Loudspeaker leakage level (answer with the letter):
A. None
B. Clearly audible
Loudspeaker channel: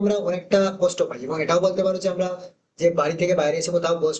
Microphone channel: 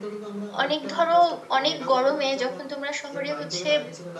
B